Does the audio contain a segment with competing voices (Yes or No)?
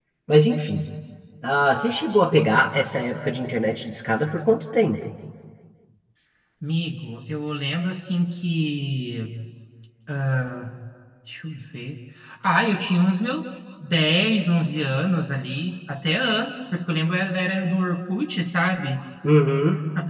No